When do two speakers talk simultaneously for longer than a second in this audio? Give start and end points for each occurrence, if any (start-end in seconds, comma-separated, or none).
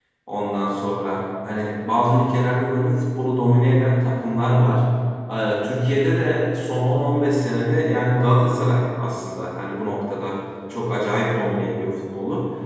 none